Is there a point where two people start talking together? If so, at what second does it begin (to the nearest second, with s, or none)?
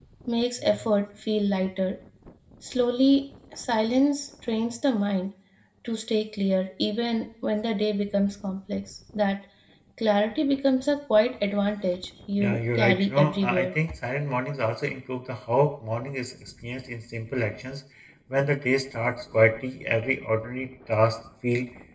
12 s